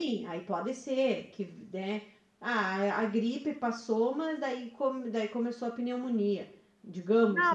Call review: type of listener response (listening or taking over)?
taking over